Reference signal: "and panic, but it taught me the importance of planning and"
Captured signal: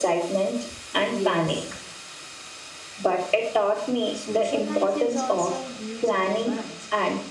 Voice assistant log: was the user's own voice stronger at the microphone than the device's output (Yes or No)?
No